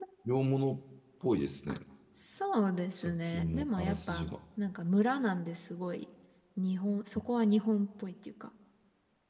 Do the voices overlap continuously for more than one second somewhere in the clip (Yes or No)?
Yes